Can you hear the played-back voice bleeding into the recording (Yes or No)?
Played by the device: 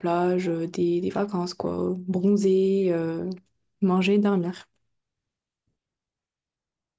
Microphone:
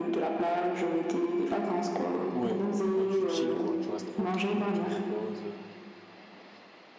Yes